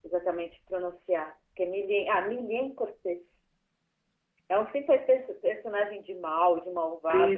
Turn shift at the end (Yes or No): Yes